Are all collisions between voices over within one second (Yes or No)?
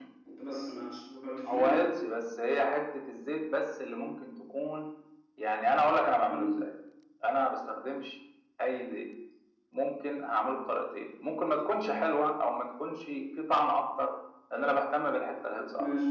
Yes